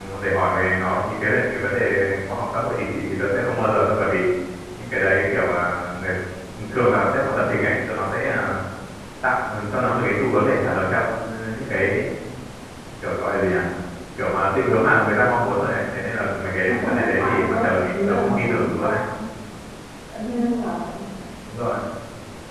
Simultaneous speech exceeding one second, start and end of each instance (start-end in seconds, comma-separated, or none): 16.6-19.0